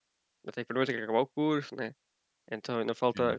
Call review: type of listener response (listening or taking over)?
listening